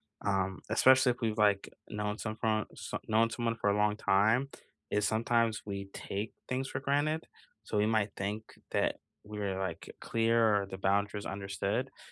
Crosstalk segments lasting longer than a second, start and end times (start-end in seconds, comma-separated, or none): none